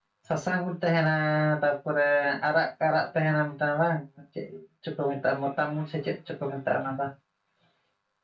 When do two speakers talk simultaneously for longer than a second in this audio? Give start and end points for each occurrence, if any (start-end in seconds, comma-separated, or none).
none